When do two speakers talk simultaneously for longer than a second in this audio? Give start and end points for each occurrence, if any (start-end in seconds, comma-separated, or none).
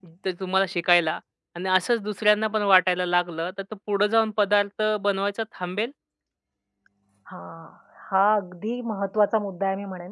none